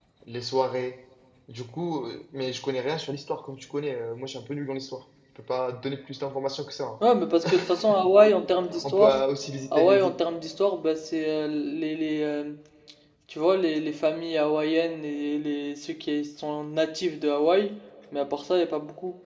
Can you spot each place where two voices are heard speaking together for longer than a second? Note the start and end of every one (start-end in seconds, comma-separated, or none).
none